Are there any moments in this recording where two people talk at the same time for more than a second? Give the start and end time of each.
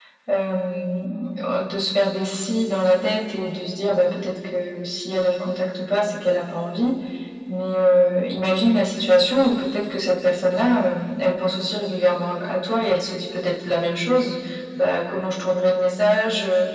none

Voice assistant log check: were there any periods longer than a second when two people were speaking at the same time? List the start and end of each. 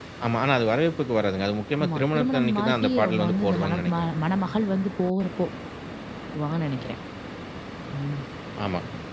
1.8-4.1

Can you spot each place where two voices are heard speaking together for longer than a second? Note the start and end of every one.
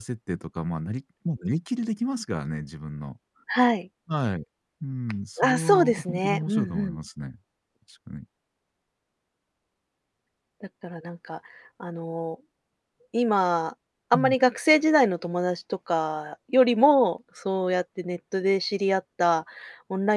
5.4-7.0

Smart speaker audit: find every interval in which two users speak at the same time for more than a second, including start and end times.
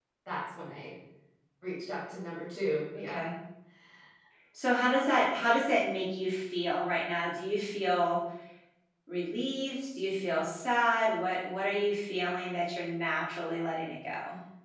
none

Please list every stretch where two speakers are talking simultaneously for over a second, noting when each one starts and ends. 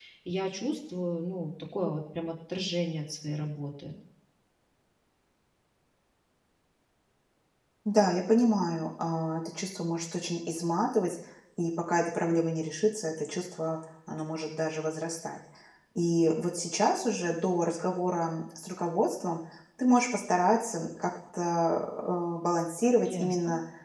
none

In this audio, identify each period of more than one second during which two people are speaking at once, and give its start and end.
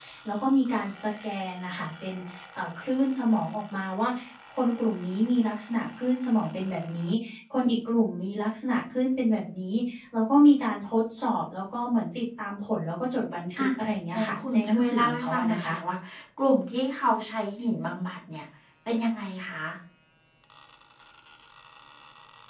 14.1-15.7

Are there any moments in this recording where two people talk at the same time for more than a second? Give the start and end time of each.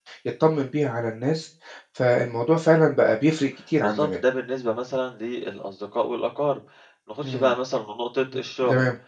none

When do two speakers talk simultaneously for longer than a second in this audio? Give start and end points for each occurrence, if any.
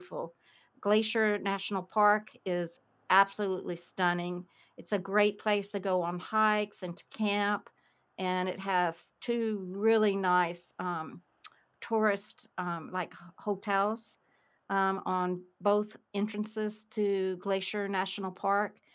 none

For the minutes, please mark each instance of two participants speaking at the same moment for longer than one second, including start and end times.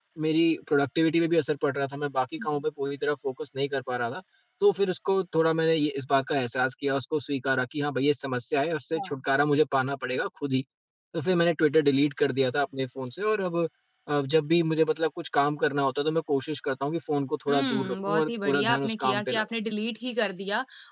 17.5-19.4

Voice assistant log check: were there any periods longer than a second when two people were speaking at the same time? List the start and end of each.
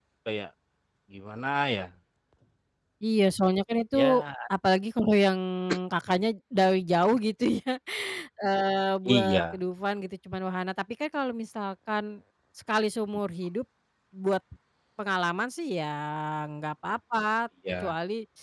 none

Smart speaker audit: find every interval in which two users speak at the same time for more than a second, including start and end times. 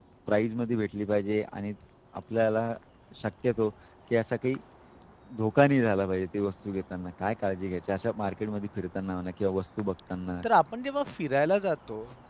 none

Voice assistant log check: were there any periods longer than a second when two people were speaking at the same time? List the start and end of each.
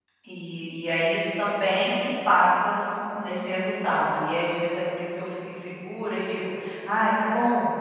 none

